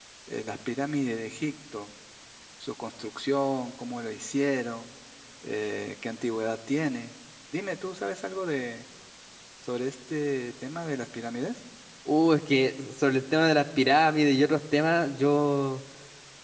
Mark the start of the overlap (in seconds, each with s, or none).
none